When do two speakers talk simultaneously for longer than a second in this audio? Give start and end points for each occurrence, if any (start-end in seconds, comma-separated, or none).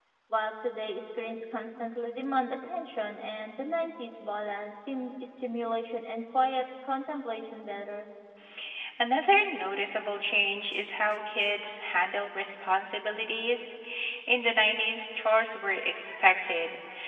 none